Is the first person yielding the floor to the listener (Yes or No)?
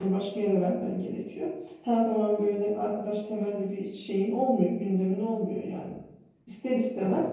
No